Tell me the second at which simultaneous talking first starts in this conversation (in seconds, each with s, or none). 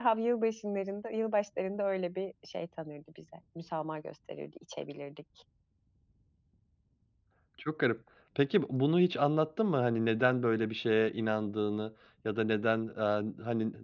none